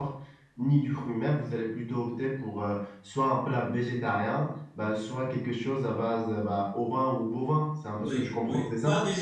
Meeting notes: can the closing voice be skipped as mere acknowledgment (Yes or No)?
No